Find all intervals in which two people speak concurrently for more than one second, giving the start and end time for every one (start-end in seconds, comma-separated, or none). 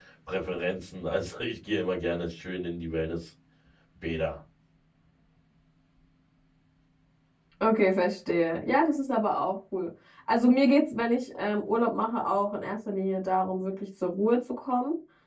none